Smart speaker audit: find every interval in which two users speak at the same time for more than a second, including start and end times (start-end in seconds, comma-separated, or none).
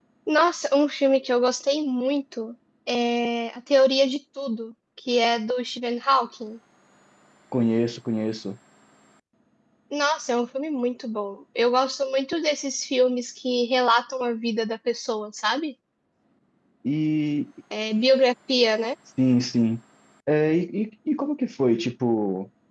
none